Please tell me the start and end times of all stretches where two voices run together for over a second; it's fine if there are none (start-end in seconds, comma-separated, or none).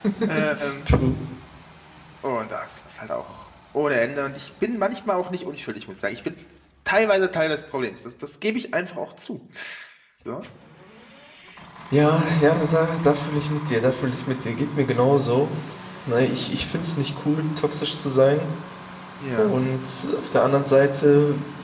none